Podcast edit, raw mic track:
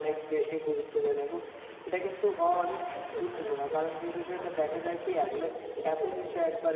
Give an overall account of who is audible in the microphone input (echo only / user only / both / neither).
echo only